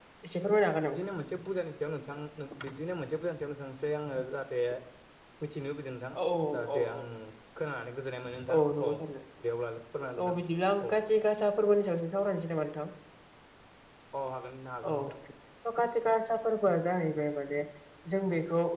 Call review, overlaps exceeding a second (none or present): none